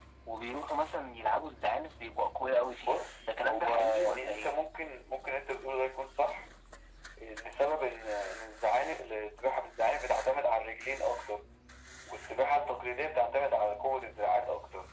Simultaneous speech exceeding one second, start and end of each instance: 2.8-4.5

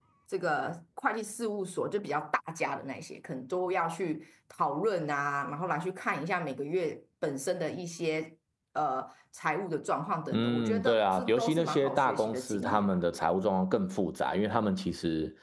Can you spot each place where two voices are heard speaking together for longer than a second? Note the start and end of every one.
10.3-13.0

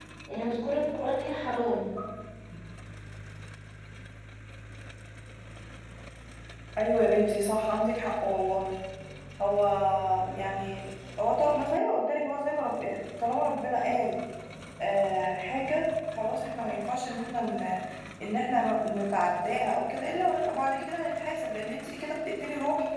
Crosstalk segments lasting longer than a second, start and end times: none

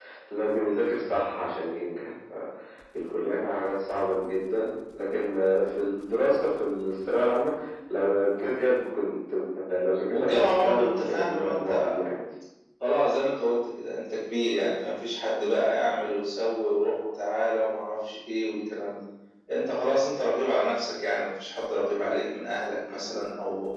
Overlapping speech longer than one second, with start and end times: 10.1-11.9

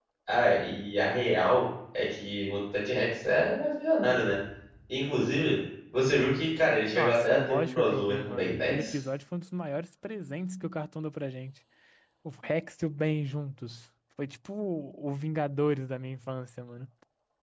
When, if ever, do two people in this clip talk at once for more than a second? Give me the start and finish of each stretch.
6.9-8.9

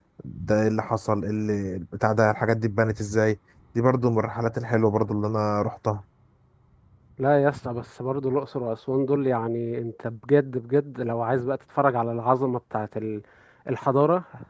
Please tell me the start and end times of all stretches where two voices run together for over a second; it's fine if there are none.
none

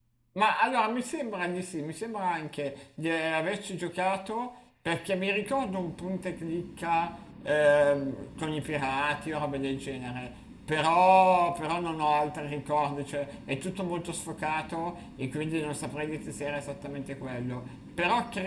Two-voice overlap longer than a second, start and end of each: none

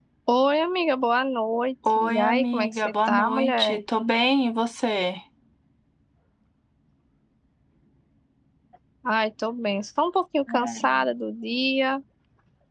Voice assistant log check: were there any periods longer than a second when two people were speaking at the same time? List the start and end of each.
2.0-3.8

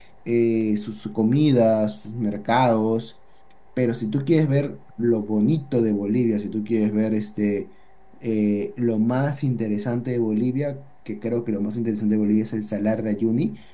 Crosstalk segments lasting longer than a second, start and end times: none

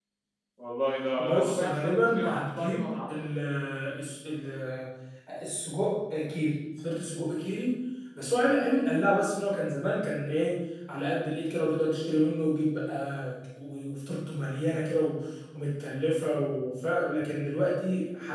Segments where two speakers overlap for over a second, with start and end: 1.2-3.2

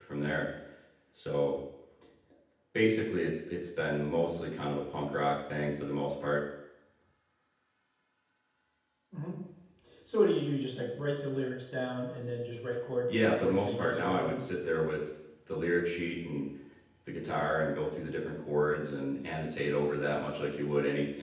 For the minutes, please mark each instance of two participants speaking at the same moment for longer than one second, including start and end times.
13.1-14.5

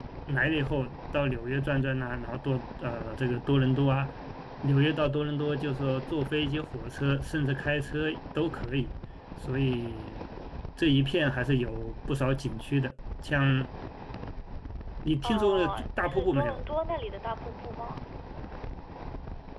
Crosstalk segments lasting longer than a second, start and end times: 15.2-16.6

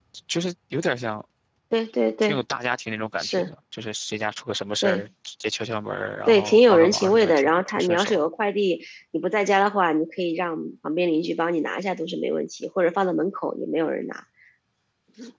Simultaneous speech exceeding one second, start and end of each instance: 6.3-8.3

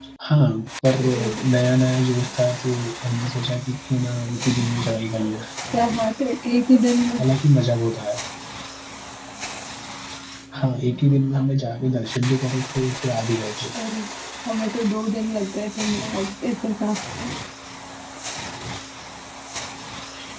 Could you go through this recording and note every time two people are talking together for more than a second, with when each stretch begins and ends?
none

